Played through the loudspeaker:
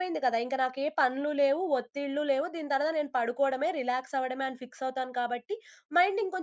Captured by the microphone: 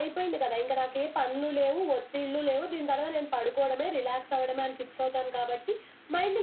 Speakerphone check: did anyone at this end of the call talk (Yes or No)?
No